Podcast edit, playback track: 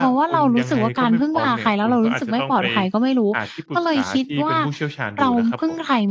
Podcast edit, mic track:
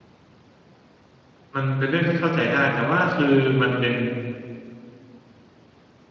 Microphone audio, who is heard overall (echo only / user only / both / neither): user only